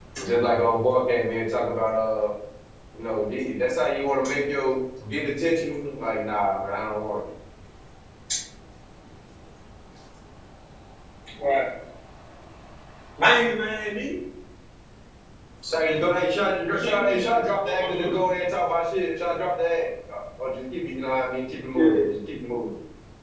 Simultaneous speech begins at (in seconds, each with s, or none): 16.8 s